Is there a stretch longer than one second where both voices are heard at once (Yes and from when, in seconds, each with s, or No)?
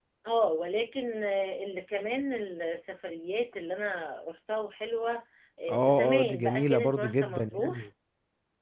Yes, from 5.7 s